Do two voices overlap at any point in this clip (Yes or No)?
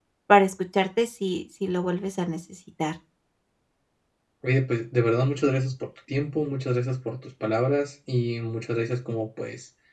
No